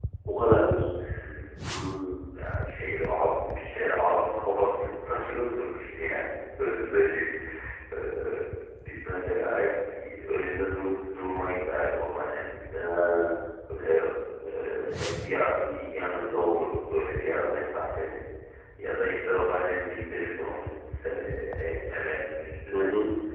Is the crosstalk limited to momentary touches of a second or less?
Yes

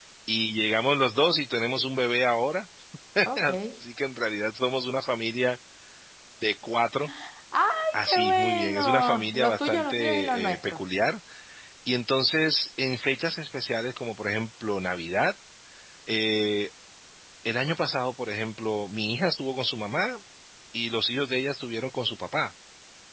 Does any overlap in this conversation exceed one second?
Yes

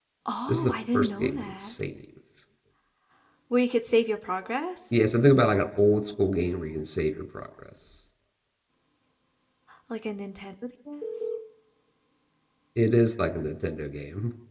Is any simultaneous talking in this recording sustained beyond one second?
Yes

